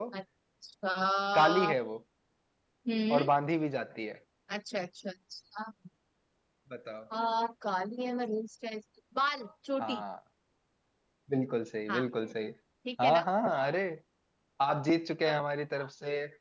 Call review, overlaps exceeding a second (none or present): none